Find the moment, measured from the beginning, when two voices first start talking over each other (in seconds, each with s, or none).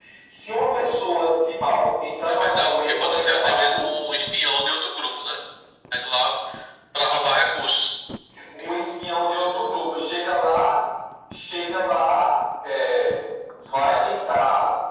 2.3 s